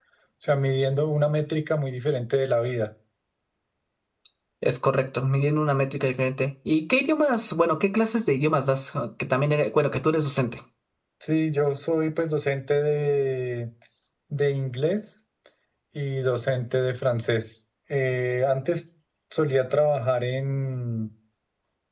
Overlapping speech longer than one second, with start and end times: none

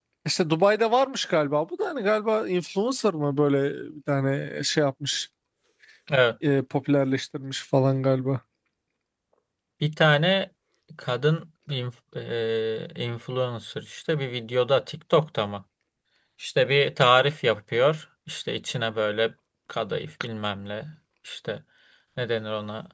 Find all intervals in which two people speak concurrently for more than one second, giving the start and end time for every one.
none

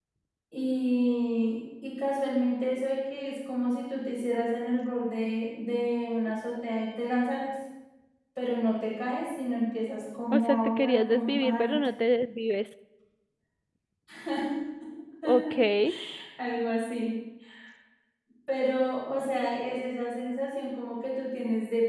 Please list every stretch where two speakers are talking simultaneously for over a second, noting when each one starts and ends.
10.3-11.7

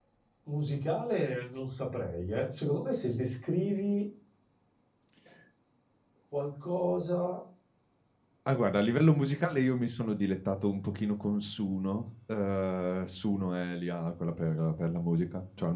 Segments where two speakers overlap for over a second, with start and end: none

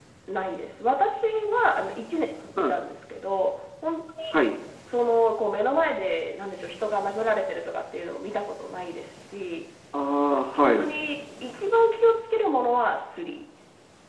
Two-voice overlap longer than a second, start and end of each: none

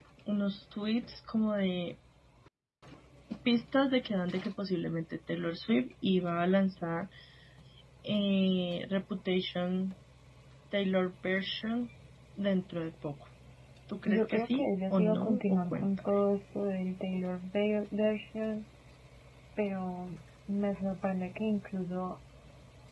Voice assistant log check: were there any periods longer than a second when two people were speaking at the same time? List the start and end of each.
14.1-16.1

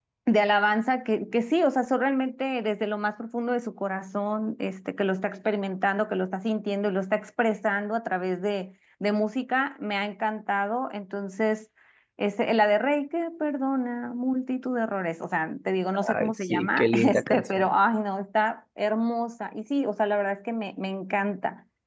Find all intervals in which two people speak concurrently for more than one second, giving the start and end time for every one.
16.1-17.7

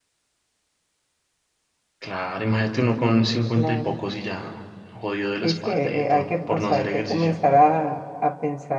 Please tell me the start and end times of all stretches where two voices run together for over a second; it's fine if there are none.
5.4-7.3

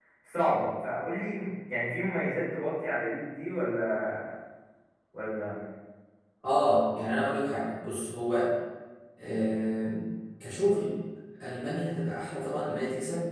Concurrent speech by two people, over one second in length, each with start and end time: none

